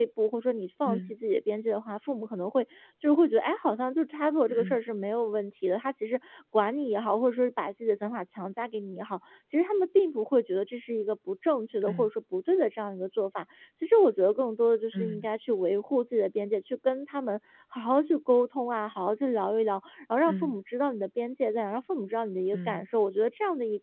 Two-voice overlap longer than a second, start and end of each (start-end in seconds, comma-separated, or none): none